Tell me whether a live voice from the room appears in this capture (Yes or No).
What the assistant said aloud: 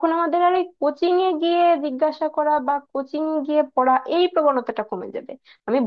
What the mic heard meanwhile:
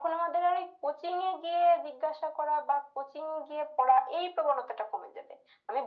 No